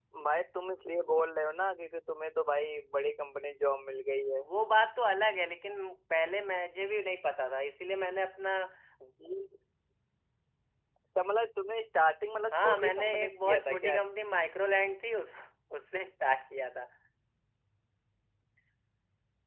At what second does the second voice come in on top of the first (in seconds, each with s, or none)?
12.5 s